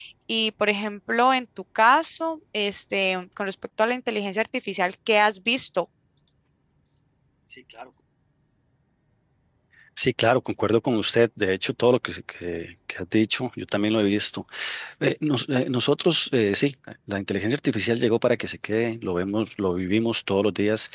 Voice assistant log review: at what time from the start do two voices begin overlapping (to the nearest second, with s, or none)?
none